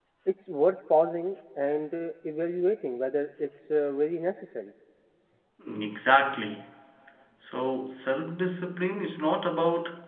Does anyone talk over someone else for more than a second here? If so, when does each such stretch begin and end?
none

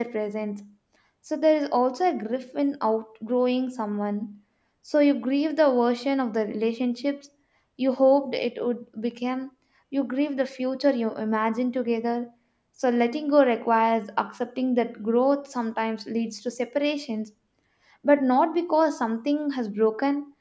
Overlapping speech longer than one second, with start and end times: none

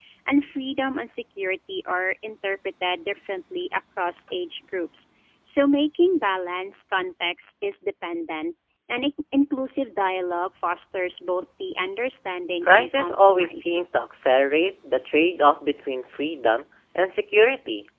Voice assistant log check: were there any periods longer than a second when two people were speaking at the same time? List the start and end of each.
12.6-13.8

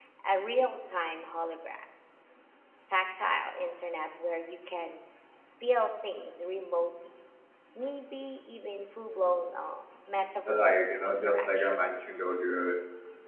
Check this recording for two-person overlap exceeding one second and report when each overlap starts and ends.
10.5-12.1

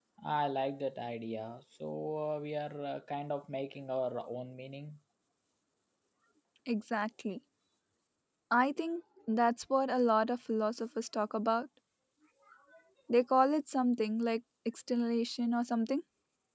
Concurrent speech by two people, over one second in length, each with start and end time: none

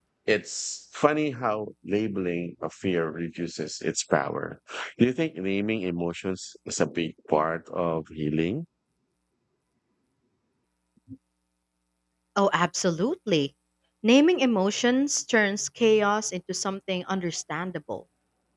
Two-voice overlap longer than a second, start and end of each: none

